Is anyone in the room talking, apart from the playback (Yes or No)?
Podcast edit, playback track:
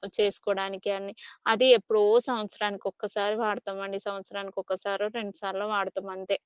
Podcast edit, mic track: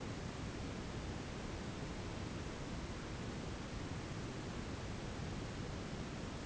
No